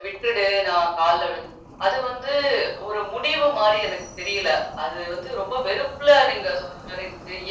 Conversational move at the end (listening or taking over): listening